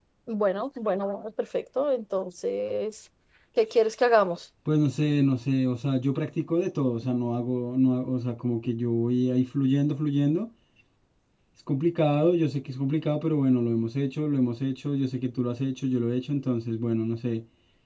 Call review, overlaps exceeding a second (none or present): none